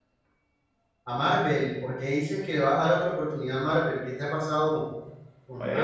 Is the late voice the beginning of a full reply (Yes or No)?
Yes